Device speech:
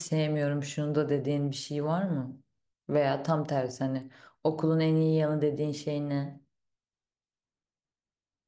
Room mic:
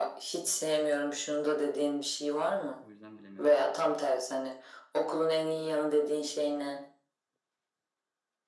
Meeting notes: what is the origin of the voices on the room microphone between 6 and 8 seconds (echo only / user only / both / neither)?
echo only